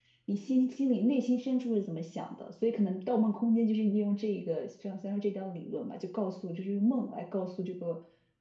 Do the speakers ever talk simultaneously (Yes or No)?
No